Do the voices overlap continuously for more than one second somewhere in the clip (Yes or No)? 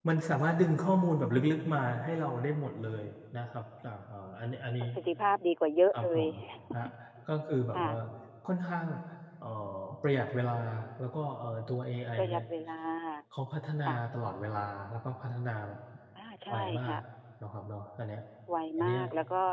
No